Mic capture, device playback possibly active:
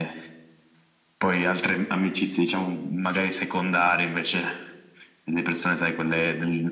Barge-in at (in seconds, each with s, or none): none